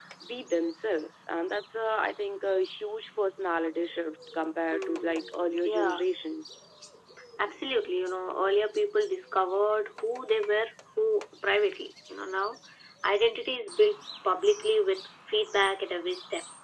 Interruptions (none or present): present